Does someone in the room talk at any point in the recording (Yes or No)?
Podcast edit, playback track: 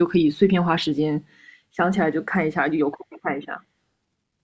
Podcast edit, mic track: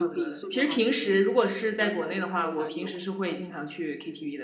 Yes